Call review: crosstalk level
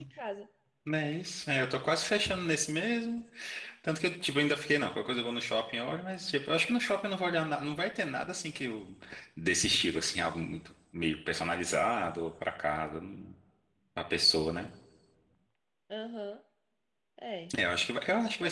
none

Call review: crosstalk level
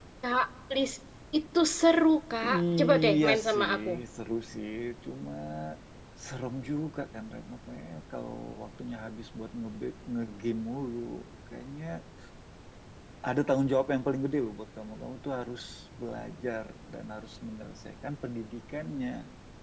present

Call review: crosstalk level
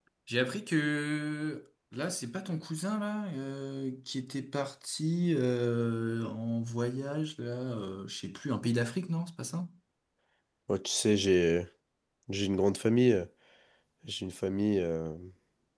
none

